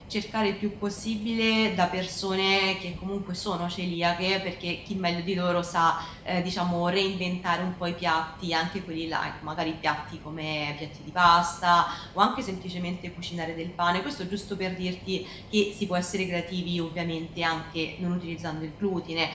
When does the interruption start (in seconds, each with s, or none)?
none